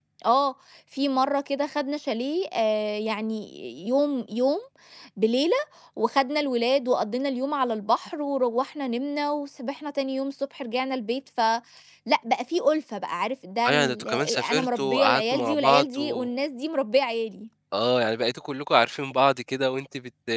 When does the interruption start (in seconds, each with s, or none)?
13.6 s